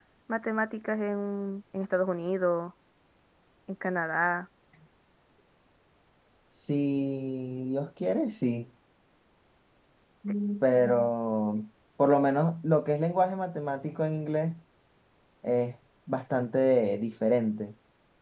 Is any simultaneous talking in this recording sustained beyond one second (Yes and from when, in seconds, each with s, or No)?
No